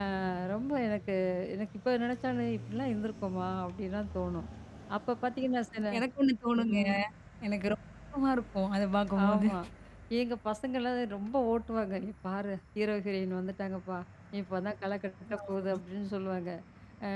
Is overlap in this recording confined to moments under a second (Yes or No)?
Yes